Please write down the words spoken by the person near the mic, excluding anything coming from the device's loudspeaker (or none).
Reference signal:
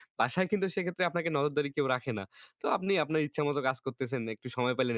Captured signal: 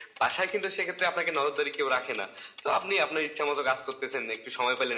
none